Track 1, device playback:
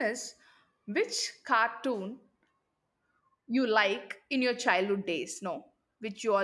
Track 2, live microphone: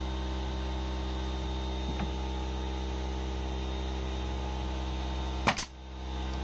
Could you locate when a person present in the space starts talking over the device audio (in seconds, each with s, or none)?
none